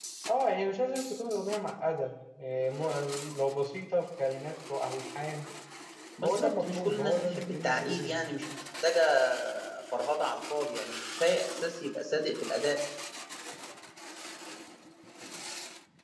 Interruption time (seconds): 6.2 s

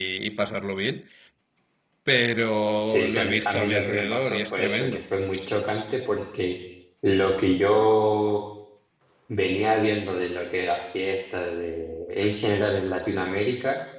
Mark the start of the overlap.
2.8 s

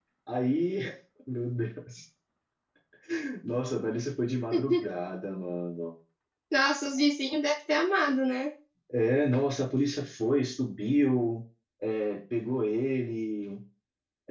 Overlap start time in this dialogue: none

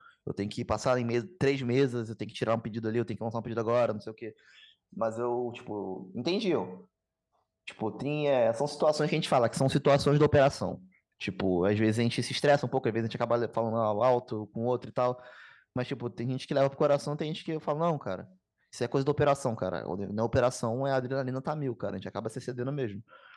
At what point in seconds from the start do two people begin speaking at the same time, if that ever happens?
none

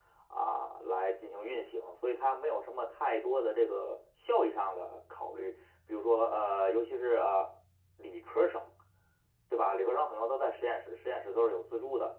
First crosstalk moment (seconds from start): none

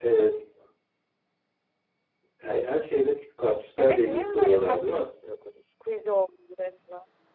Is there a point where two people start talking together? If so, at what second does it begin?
3.8 s

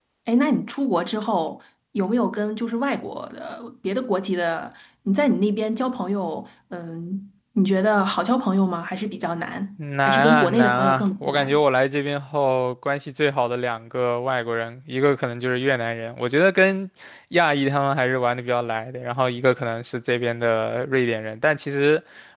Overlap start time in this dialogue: 9.8 s

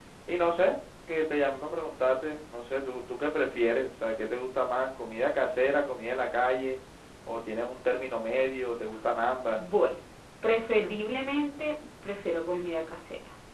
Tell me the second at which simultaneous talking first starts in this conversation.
none

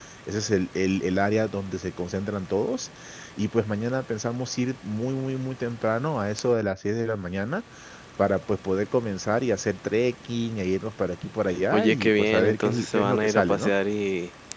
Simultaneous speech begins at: 11.7 s

